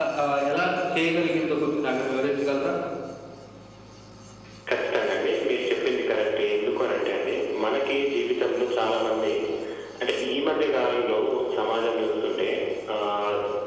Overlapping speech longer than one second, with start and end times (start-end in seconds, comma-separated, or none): none